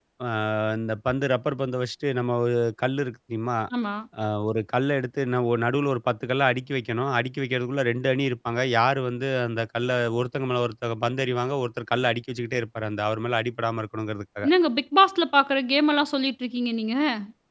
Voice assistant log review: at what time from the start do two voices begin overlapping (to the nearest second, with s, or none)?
none